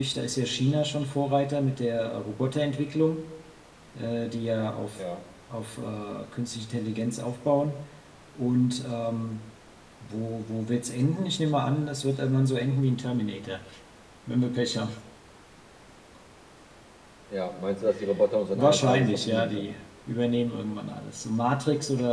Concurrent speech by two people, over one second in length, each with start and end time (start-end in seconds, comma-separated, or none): 18.5-19.7